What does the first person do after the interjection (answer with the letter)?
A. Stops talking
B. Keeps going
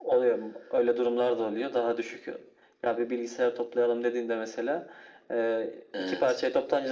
B